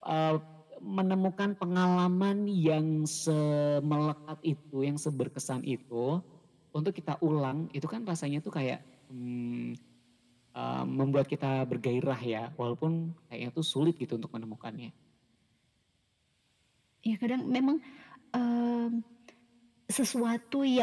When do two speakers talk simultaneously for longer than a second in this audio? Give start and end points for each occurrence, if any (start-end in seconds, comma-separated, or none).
none